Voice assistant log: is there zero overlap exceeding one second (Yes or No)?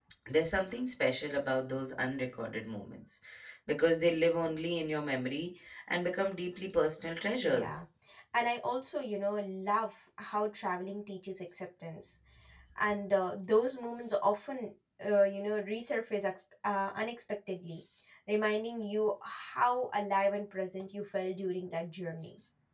Yes